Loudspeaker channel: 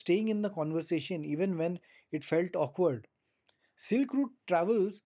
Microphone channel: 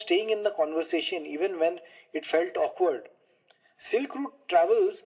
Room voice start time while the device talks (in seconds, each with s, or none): none